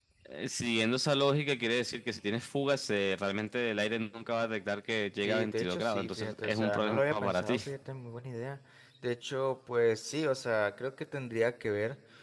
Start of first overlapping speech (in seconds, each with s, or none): 5.2 s